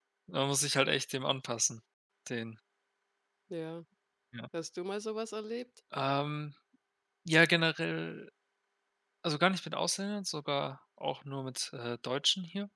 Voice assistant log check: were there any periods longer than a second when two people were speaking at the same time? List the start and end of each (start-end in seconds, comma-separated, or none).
none